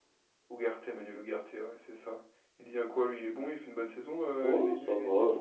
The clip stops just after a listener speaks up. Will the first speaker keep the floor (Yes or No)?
No